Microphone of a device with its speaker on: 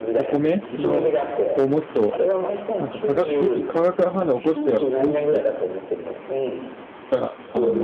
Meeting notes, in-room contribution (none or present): present